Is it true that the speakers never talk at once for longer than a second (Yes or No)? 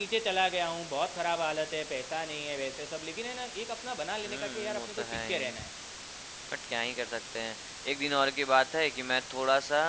No